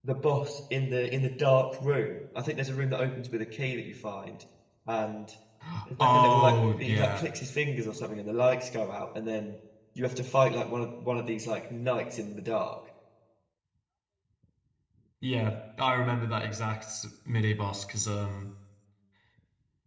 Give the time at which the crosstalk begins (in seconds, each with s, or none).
6.0 s